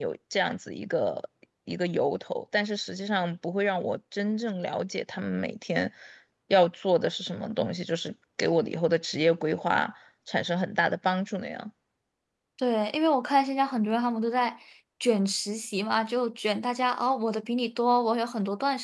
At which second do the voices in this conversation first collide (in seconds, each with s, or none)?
none